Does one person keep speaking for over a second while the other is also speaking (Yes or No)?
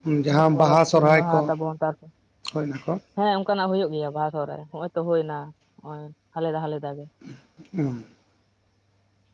Yes